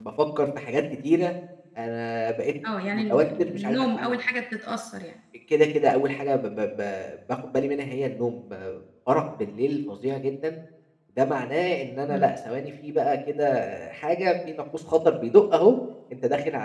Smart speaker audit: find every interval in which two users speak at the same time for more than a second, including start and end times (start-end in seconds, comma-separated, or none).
2.8-4.1